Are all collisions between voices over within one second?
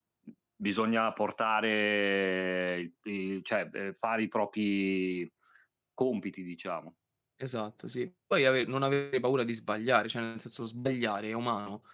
Yes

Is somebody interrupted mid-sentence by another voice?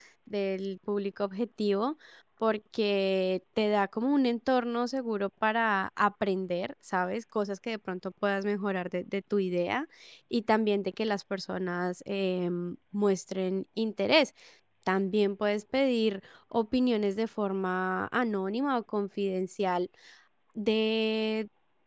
No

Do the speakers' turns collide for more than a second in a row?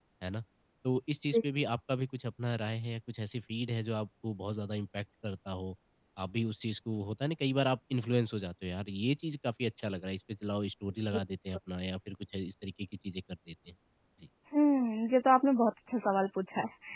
No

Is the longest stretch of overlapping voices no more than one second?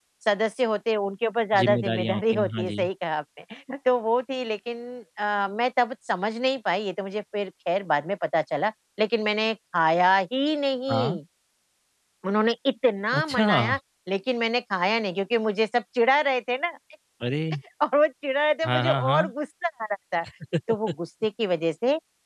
No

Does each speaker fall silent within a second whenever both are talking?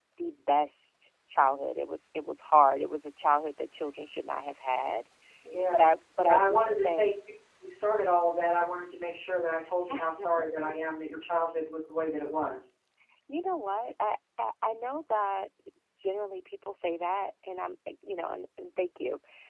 No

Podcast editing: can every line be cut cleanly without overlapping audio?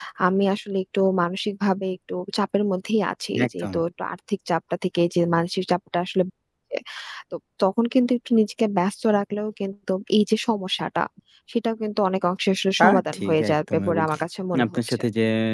No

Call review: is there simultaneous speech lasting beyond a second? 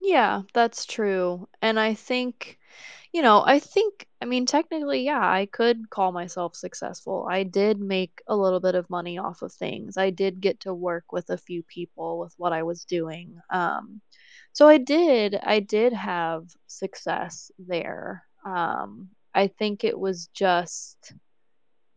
No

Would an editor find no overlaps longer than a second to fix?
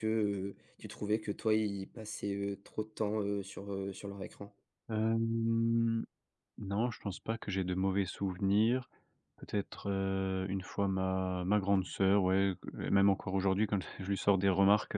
Yes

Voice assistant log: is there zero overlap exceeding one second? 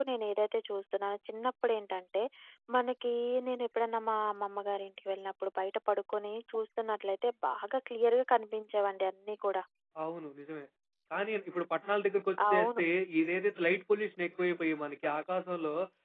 Yes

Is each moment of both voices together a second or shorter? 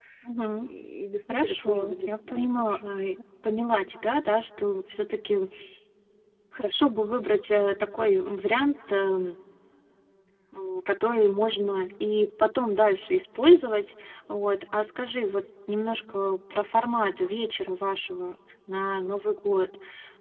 No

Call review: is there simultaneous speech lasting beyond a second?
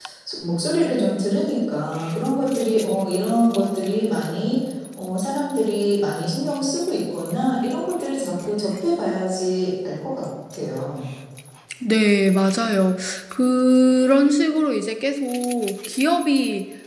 No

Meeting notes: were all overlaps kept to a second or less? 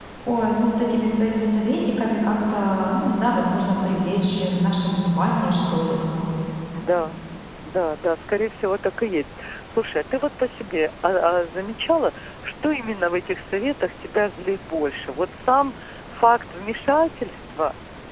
Yes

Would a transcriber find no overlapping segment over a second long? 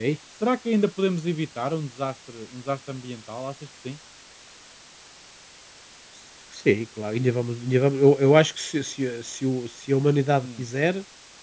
Yes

